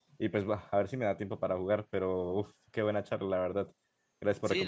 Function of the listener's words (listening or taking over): taking over